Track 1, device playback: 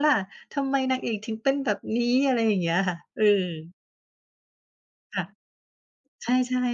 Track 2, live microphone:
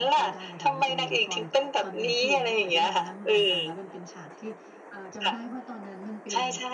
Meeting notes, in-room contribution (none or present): present